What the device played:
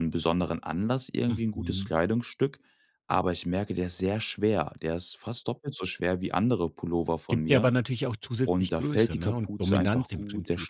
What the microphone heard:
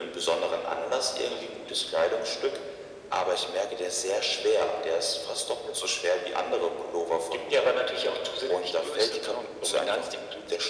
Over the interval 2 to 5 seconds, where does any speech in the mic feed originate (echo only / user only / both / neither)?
echo only